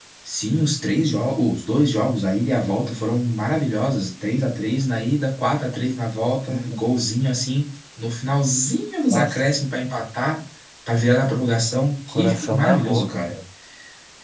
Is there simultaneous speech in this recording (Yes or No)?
Yes